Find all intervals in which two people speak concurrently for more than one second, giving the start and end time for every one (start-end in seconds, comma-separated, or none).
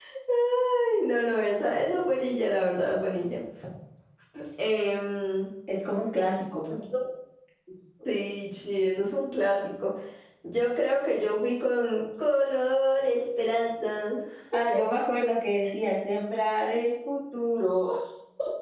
none